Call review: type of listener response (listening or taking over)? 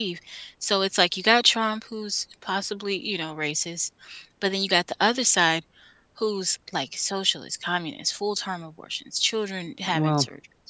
listening